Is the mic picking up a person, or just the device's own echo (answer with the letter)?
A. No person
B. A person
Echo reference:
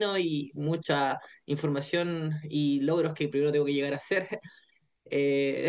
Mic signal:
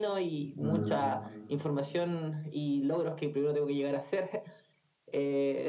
B